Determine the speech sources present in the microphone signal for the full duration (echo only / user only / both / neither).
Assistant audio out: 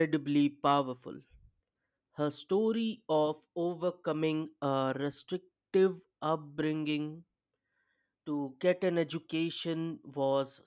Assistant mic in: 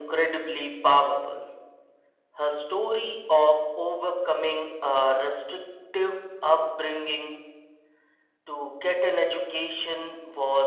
echo only